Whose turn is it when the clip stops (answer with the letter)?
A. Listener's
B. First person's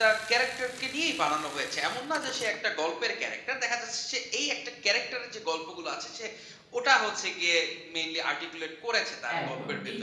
A